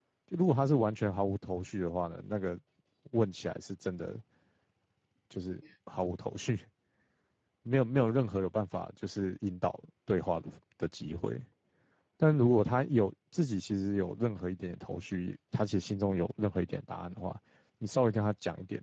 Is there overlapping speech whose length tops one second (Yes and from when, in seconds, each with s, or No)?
No